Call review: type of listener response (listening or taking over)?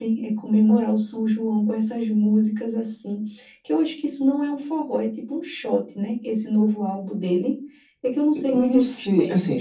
taking over